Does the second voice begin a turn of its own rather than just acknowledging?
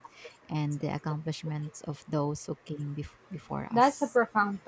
Yes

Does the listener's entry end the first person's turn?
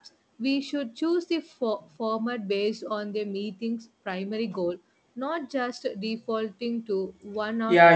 Yes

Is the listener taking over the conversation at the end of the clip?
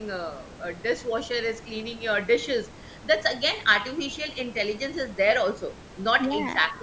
No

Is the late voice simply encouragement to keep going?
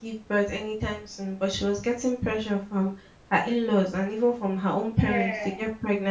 Yes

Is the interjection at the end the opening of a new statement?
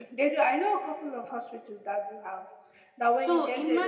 No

